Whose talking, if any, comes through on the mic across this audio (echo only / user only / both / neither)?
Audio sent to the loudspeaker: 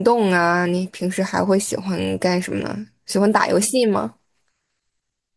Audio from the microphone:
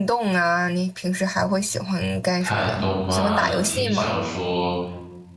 both